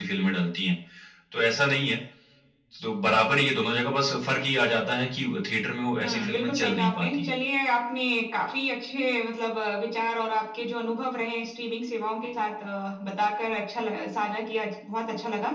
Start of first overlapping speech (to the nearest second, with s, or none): 6 s